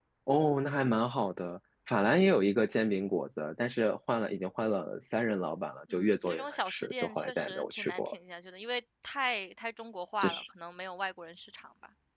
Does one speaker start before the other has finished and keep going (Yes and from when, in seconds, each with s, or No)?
Yes, from 5.9 s